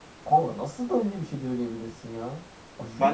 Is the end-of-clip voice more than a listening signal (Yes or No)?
Yes